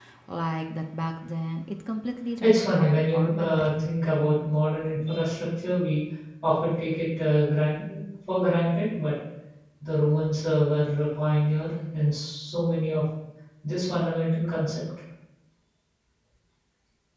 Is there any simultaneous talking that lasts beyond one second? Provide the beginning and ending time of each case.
2.4-3.7

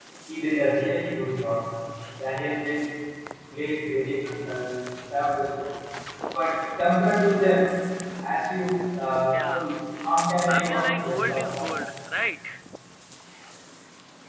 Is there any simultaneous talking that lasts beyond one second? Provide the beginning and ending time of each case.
10.5-11.7

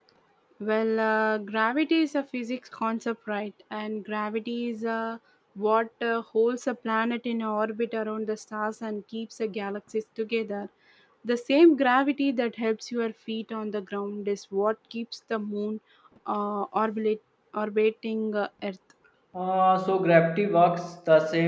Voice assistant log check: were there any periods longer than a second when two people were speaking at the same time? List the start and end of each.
none

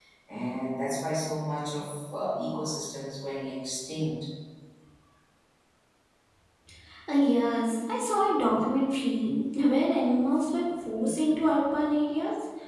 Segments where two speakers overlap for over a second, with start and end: none

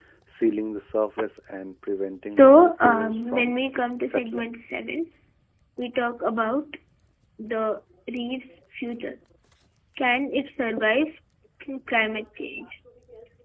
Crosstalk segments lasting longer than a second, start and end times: 2.3-3.5

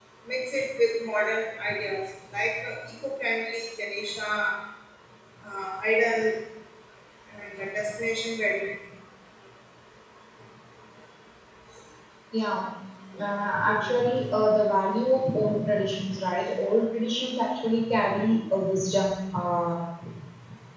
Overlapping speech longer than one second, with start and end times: none

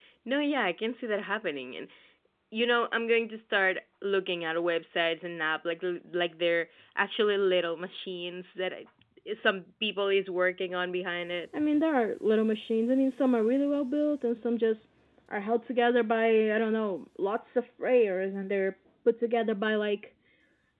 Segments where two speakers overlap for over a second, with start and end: none

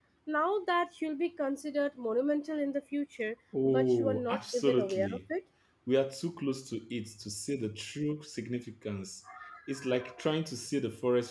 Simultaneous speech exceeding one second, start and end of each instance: 3.7-5.2

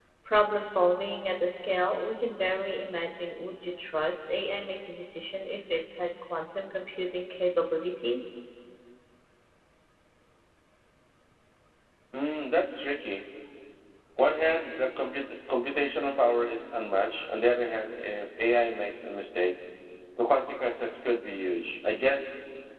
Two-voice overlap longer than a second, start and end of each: none

